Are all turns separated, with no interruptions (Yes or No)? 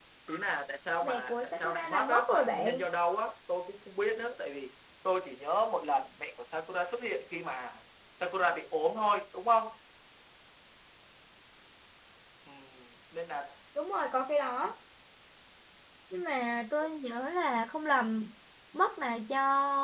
No